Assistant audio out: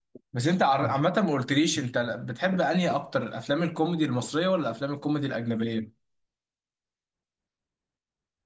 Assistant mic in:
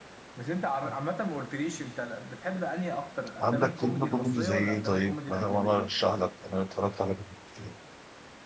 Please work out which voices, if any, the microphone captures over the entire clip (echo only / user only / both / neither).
both